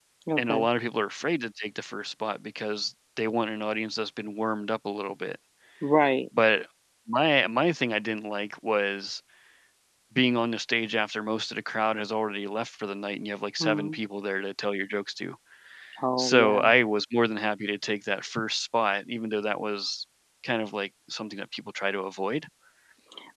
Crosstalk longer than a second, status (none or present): none